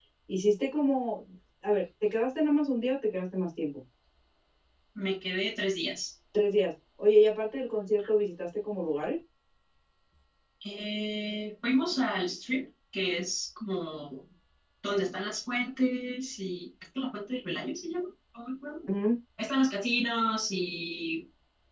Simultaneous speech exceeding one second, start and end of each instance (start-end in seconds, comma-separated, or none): none